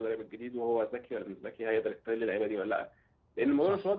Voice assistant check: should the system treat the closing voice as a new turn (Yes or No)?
No